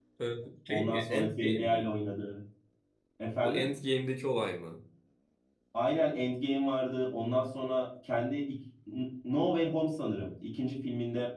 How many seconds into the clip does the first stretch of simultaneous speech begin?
1 s

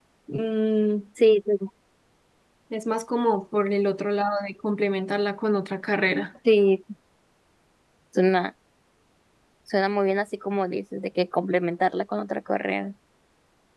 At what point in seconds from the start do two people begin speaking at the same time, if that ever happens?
none

